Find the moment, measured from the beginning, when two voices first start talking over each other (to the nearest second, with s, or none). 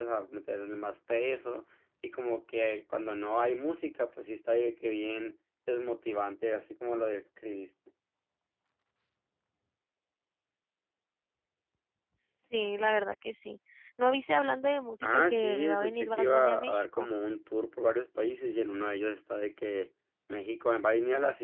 15 s